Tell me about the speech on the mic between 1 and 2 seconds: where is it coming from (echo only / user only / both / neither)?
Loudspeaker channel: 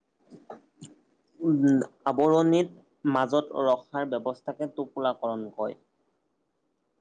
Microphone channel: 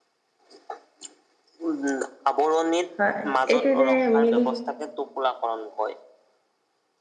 echo only